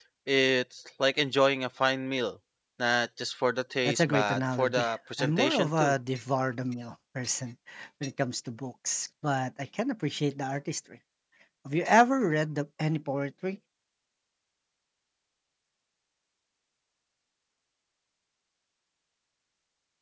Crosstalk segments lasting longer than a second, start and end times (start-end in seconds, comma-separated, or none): 3.9-5.9